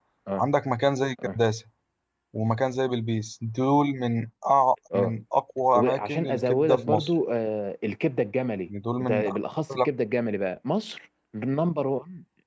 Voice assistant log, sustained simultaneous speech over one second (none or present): present